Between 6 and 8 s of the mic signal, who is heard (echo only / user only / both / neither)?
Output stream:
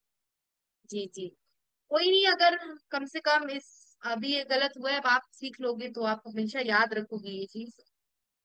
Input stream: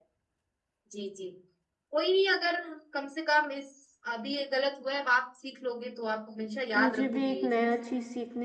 both